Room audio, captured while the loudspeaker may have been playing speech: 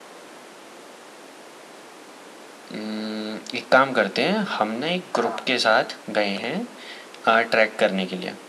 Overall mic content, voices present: both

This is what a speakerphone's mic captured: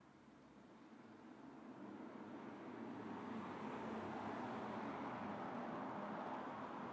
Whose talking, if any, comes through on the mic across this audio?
neither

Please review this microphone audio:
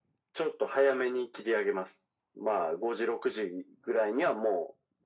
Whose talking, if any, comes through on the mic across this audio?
echo only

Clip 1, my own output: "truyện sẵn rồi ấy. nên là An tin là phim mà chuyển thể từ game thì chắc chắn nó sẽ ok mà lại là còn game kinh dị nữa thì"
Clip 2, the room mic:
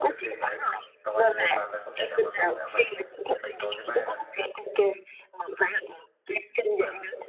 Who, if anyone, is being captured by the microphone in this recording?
both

